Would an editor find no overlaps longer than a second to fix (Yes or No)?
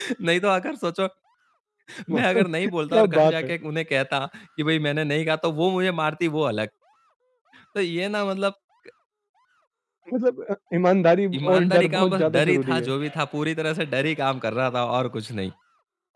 No